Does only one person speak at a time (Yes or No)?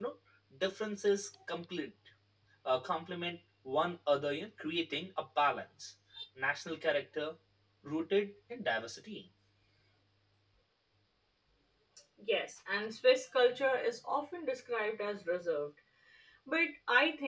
Yes